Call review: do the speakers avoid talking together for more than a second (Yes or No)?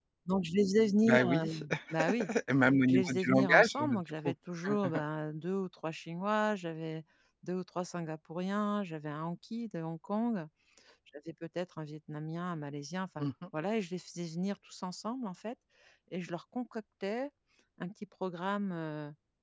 No